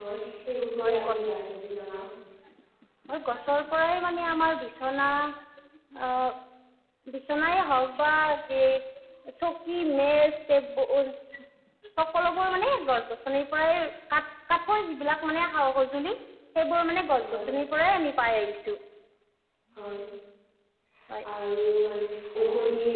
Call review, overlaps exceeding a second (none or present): none